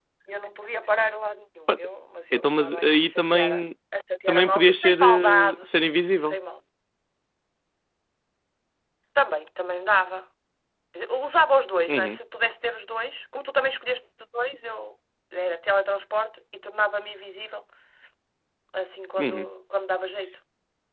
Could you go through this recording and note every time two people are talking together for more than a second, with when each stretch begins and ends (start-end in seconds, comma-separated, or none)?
2.3-3.5, 4.3-5.5